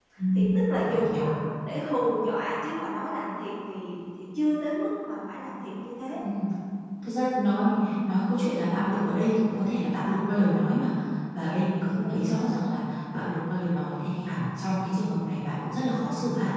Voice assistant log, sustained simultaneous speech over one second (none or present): none